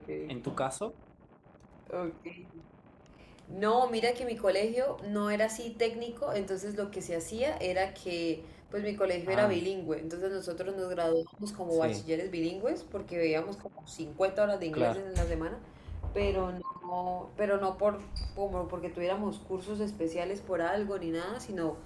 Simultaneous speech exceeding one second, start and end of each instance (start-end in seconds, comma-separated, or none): none